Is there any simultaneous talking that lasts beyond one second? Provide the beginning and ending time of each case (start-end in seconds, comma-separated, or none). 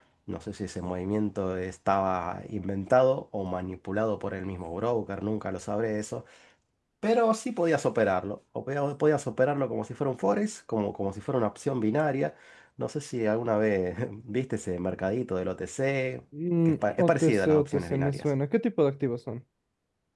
16.6-18.2